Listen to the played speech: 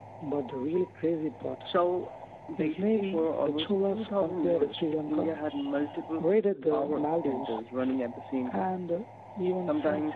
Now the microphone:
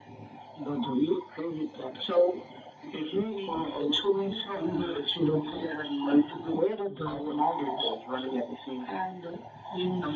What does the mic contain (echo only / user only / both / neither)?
echo only